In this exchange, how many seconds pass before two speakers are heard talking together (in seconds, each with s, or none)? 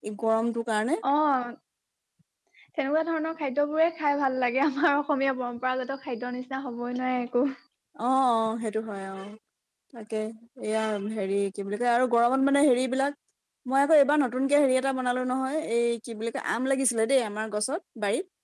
none